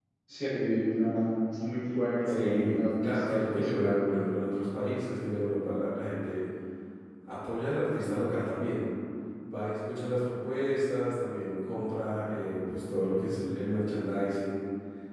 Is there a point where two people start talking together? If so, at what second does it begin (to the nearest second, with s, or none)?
2 s